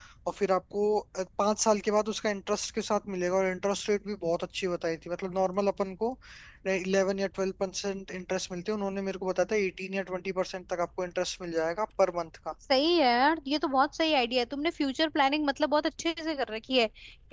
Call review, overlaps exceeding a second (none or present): none